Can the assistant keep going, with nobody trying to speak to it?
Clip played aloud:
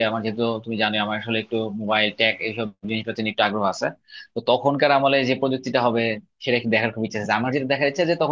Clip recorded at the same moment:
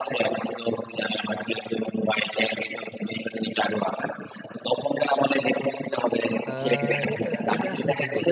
No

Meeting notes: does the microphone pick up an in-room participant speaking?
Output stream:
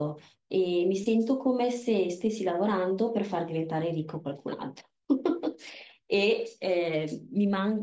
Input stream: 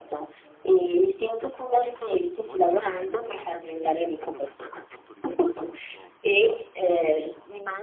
Yes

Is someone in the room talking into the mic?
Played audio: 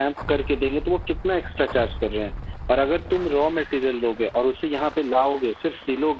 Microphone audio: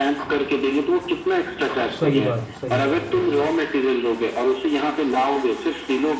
Yes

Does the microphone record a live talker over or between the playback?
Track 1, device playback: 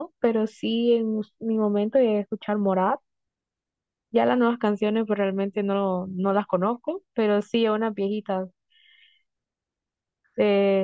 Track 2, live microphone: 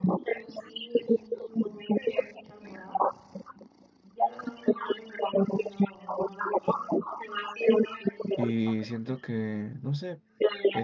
Yes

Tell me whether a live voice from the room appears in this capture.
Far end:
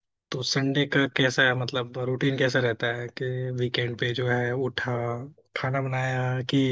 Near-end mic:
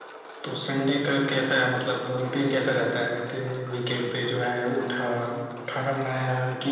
No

